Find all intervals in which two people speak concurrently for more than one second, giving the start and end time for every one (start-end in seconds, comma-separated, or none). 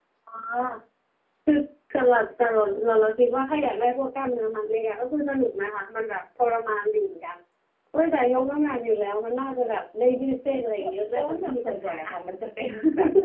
10.8-12.1